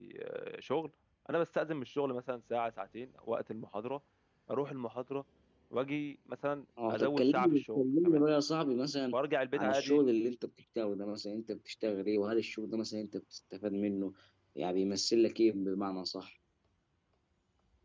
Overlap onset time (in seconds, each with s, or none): 6.9 s